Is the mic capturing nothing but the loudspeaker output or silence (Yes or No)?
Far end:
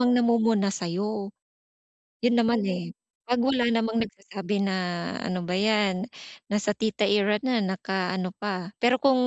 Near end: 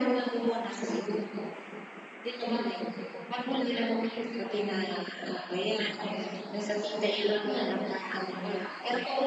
Yes